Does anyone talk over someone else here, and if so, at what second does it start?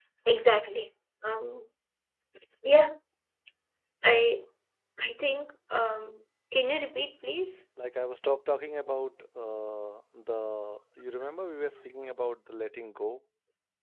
none

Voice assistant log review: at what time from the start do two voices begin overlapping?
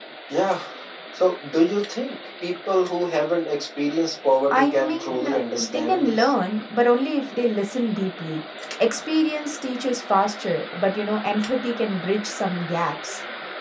5 s

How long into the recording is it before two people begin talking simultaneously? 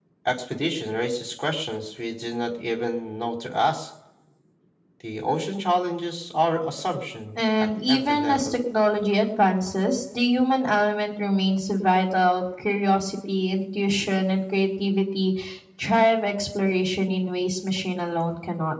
7 s

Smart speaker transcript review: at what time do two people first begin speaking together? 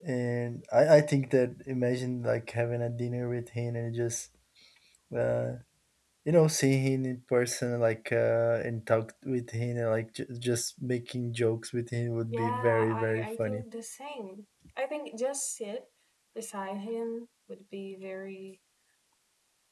12 s

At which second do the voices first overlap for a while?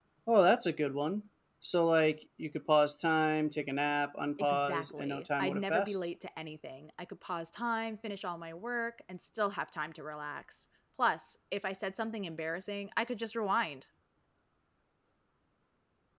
4 s

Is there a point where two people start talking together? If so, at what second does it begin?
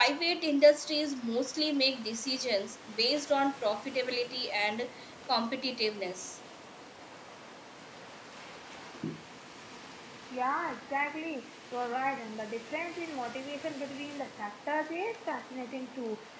none

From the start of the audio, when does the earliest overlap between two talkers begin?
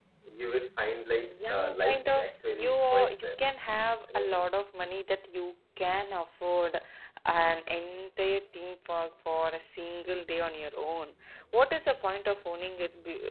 1 s

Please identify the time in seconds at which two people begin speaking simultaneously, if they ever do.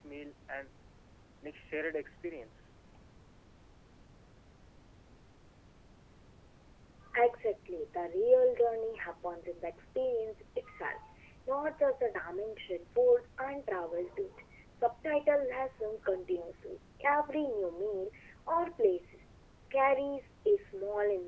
none

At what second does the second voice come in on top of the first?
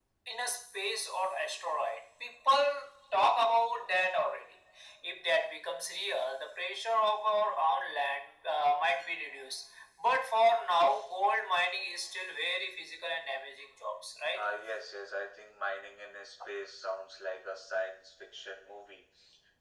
none

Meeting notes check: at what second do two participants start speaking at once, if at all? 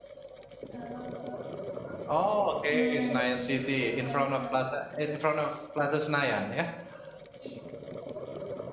3 s

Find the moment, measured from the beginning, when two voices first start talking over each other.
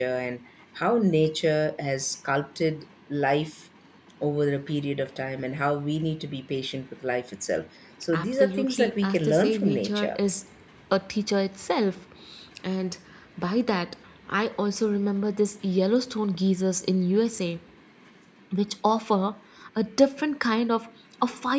8 s

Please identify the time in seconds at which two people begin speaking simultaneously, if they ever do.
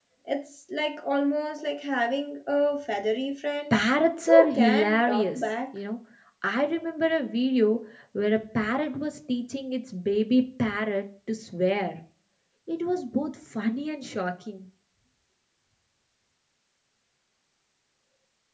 4 s

